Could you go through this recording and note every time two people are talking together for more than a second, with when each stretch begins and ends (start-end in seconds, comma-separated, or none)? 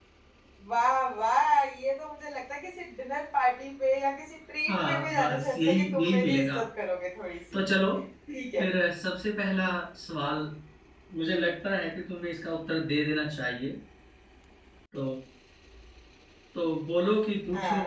4.7-6.6